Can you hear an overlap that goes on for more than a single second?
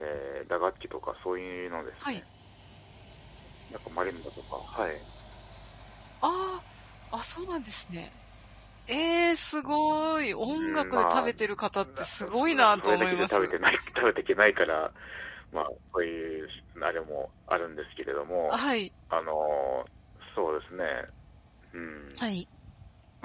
Yes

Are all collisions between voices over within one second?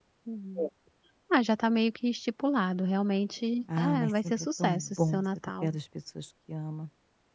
No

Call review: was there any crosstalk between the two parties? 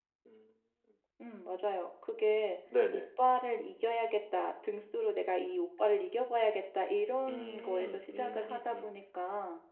Yes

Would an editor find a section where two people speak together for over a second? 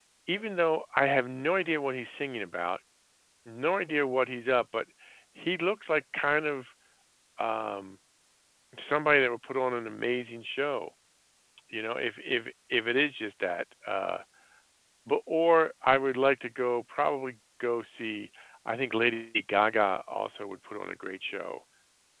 No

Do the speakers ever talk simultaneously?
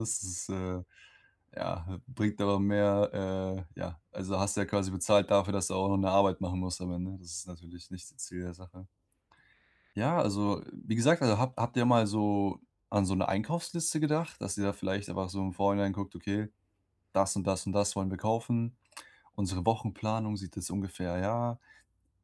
No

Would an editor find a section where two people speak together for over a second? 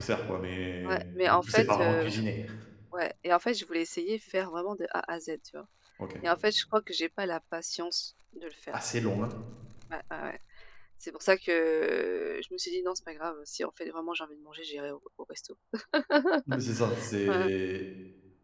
Yes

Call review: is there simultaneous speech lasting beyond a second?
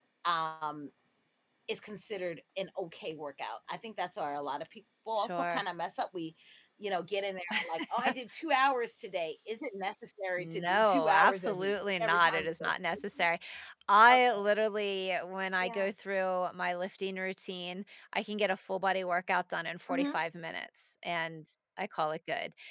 Yes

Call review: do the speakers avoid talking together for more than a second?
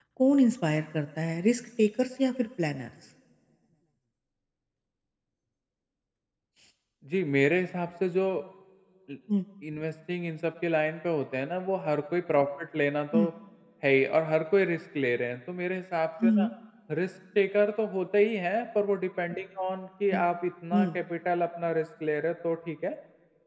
Yes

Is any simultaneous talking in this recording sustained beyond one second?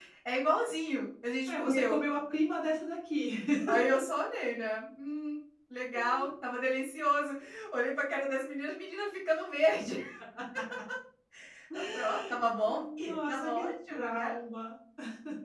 Yes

